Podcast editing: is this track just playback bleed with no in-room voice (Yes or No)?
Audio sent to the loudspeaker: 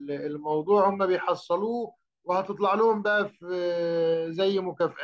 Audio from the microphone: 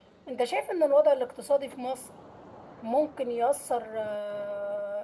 No